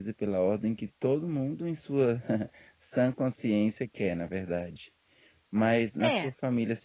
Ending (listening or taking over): listening